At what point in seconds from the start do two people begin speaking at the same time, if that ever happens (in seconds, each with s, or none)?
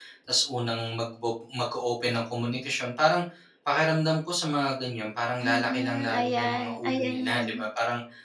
5.4 s